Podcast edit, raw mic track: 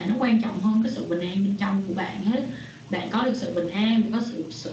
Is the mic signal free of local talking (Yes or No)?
Yes